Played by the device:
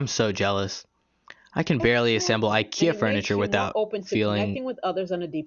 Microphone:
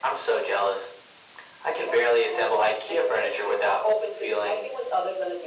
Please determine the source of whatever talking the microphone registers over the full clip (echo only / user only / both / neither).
echo only